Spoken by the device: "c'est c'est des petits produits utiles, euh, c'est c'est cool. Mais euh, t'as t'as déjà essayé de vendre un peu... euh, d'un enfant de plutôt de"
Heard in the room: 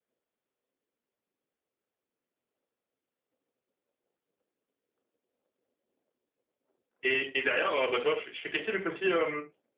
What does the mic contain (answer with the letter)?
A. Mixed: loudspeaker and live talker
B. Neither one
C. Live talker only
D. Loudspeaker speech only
C